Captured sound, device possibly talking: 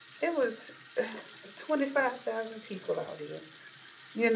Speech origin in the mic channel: user only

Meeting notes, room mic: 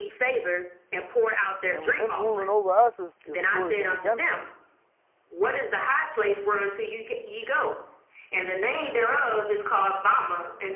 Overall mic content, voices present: both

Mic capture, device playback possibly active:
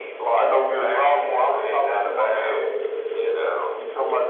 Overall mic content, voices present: both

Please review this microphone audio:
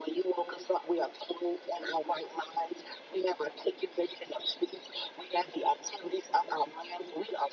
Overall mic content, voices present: echo only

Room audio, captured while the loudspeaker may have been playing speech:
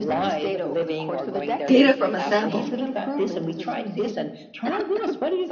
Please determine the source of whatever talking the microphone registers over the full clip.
both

